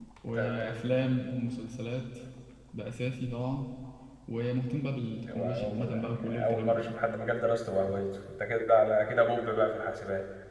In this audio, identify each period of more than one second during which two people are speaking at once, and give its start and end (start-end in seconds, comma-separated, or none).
5.3-6.8